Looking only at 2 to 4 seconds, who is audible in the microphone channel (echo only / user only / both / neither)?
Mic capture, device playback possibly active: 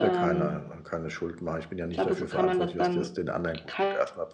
both